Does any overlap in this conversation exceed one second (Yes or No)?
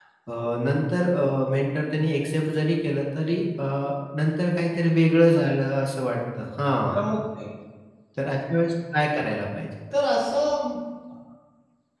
No